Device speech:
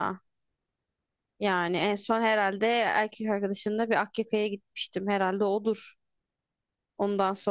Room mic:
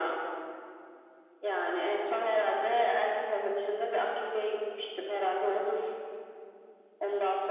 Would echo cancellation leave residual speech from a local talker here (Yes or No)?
No